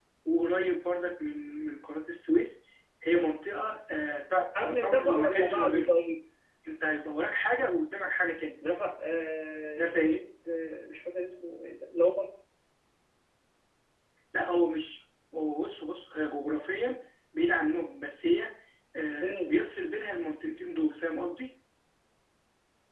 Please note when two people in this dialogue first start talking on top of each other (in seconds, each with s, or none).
4.6 s